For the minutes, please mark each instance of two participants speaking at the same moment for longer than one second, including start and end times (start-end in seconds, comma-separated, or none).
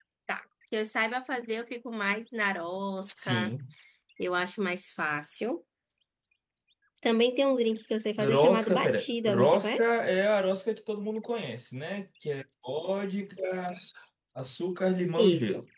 8.2-9.9